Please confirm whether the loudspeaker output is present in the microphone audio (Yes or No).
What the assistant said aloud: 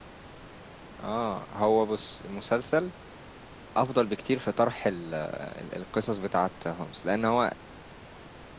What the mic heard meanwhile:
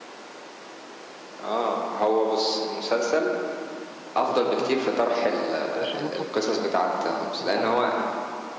Yes